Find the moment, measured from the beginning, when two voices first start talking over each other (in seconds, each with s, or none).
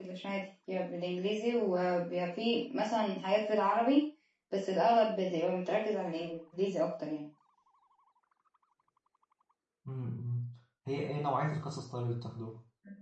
none